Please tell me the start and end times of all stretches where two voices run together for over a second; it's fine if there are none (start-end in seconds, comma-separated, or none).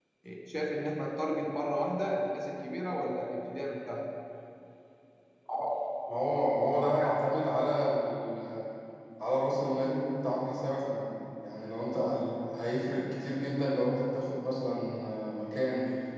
none